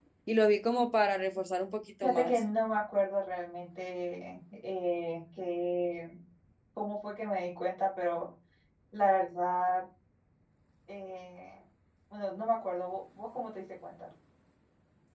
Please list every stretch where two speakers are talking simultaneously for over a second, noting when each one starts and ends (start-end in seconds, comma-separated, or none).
none